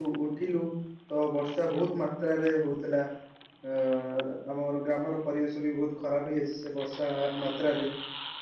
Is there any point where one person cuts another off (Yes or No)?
No